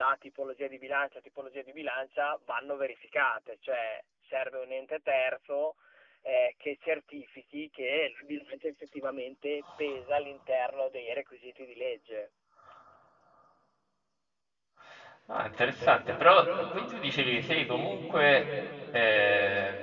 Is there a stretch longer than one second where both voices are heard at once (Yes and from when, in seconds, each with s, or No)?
No